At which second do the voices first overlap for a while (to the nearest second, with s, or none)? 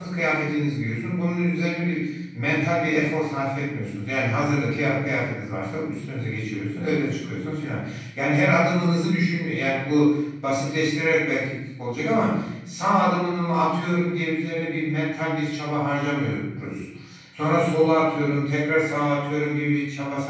none